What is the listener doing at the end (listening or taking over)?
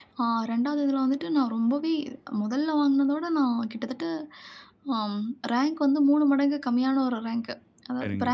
listening